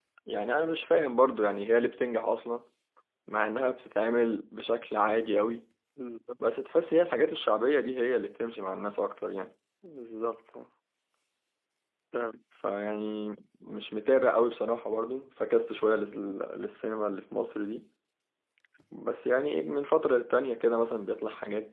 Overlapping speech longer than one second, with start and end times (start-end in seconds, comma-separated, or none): none